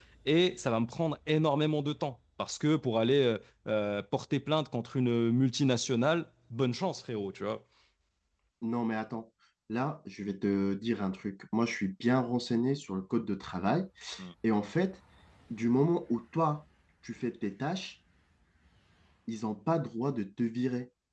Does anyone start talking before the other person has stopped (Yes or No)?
No